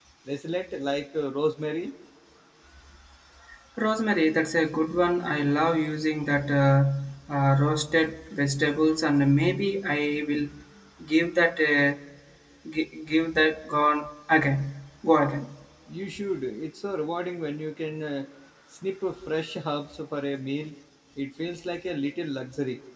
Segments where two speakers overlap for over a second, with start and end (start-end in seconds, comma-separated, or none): none